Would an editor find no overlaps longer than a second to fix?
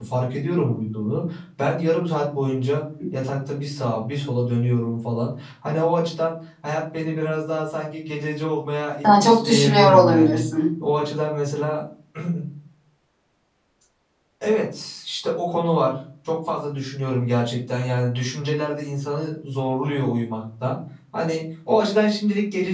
No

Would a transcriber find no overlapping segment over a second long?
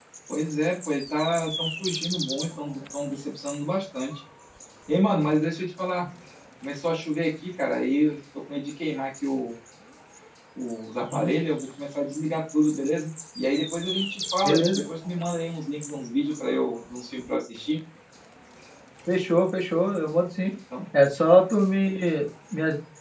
Yes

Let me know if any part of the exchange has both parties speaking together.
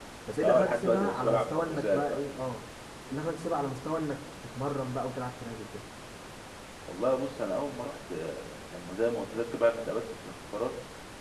Yes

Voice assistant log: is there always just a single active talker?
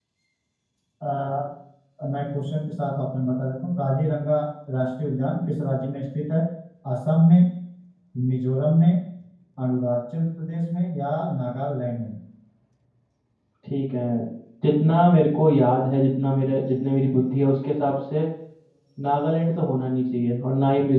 Yes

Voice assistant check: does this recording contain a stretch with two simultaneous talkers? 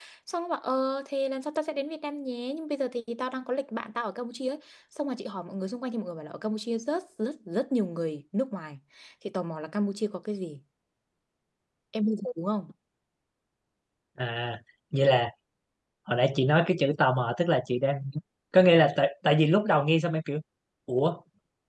No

